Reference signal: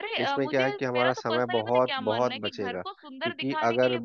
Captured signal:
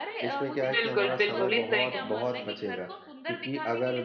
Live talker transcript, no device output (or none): बिल्कुल बिल्कुल इस तरीके से